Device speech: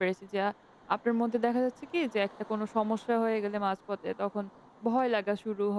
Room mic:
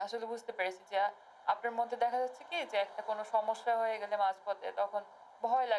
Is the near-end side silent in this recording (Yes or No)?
Yes